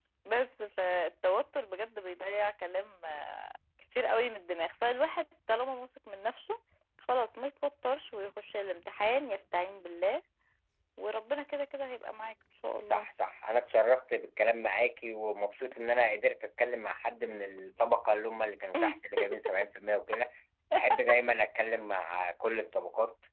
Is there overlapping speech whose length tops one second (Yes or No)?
No